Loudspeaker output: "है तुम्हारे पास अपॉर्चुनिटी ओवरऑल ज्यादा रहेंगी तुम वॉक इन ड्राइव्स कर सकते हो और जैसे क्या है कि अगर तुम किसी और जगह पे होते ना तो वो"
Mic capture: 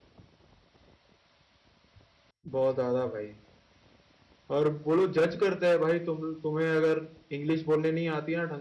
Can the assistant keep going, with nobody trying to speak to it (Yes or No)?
No